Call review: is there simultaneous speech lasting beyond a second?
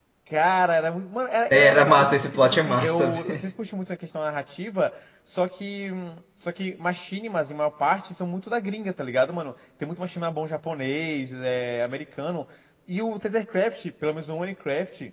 Yes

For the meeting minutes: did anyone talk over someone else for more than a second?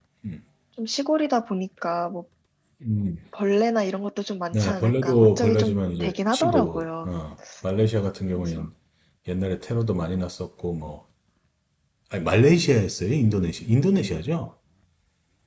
Yes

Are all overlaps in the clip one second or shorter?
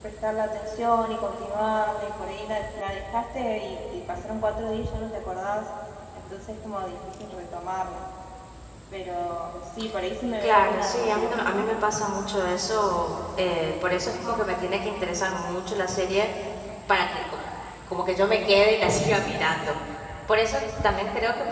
No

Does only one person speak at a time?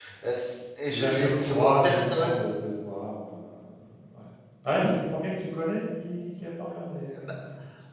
No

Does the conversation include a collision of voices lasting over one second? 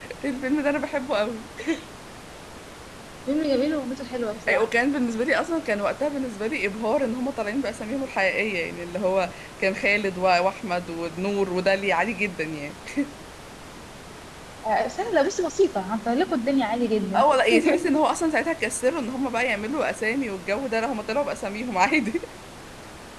No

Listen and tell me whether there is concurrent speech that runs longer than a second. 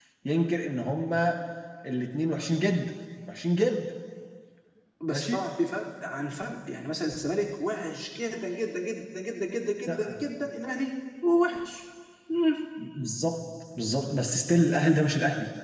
No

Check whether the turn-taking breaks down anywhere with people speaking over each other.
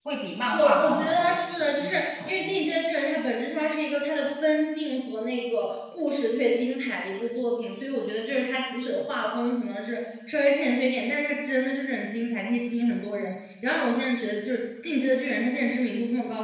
Yes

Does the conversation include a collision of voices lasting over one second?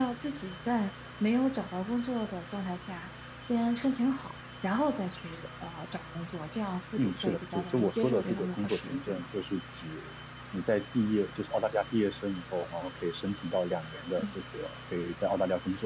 Yes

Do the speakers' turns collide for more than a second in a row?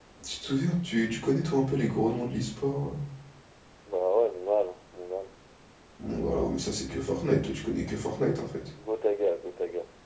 No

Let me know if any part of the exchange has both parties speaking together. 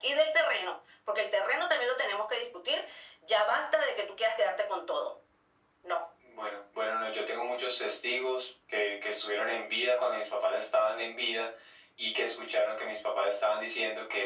No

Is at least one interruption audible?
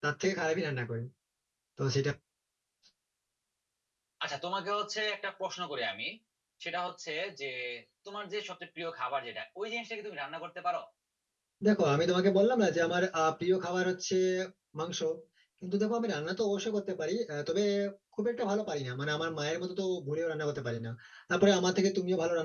No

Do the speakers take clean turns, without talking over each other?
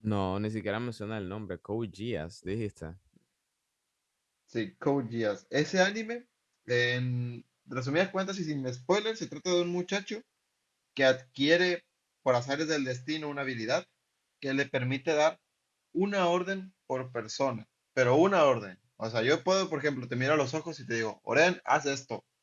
Yes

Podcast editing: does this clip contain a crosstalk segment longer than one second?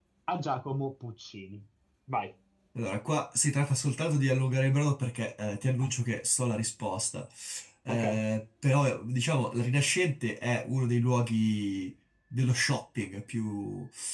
No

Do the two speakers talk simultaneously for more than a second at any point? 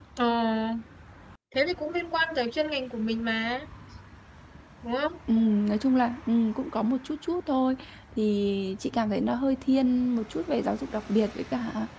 No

